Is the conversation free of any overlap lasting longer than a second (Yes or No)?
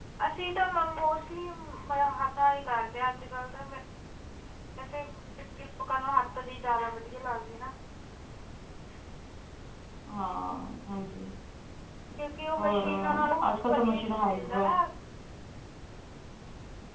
No